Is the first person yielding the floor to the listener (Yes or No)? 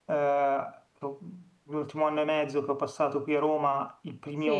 No